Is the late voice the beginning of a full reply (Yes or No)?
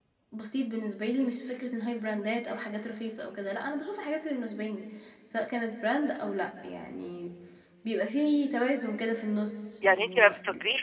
Yes